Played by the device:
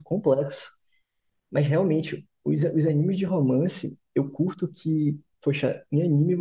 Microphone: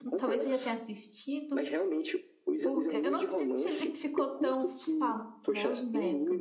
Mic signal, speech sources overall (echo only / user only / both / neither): both